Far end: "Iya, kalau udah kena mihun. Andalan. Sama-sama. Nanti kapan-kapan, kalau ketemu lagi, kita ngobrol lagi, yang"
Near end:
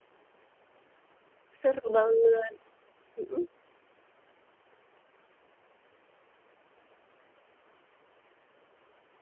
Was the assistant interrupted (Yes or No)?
Yes